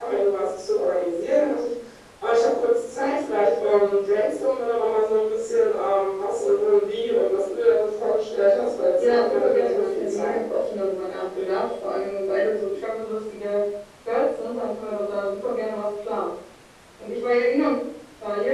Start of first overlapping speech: 9.0 s

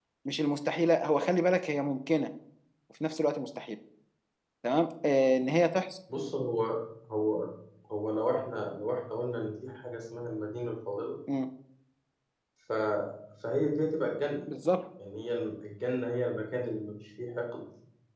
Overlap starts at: none

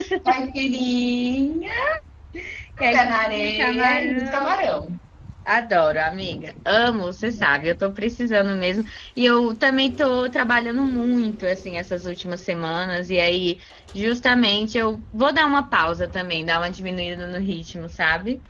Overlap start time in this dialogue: 2.9 s

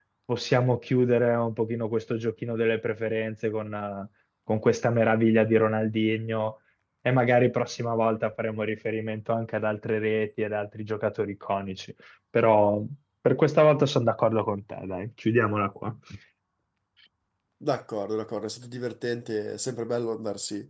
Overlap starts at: none

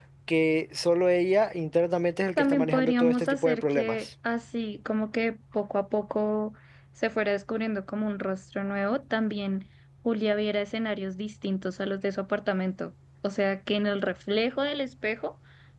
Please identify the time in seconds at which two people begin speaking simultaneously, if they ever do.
2.4 s

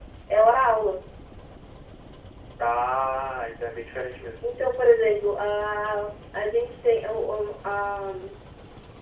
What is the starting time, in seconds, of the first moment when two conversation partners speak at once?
none

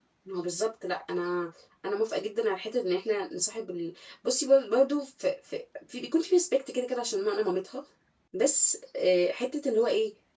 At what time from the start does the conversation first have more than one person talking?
none

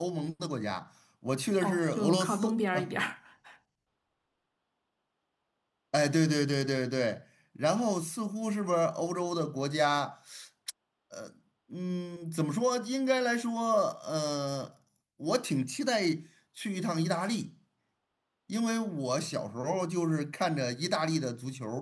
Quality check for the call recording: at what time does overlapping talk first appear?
1.6 s

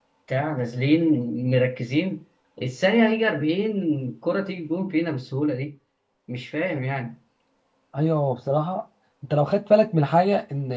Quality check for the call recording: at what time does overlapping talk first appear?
none

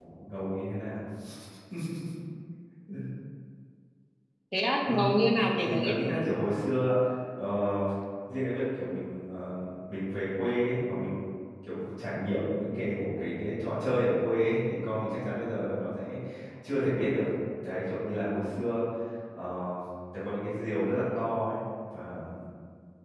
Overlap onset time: 4.8 s

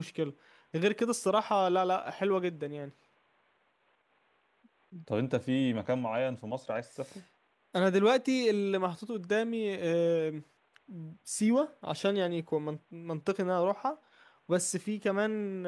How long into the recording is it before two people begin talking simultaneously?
none

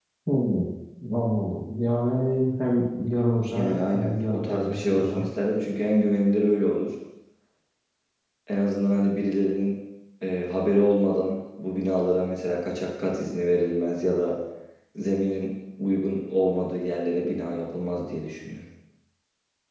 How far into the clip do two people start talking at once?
3.5 s

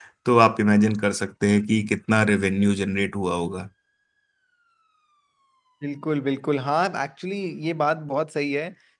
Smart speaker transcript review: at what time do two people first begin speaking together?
none

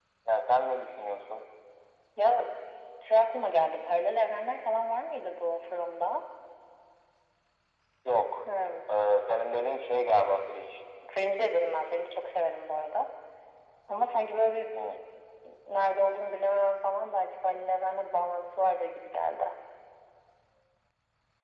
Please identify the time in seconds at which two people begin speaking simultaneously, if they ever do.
none

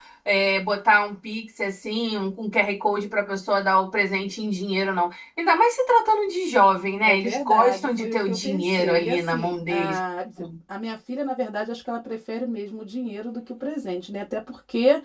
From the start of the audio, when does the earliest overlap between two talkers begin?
7.0 s

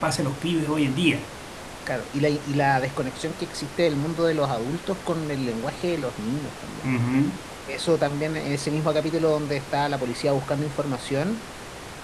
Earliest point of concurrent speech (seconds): none

